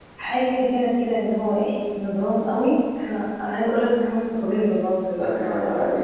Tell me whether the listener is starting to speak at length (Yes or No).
Yes